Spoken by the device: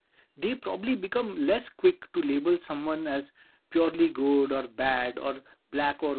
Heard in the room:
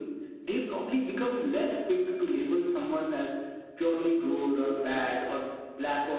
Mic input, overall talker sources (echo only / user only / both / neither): echo only